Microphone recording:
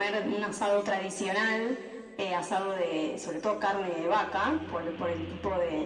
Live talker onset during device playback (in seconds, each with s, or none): none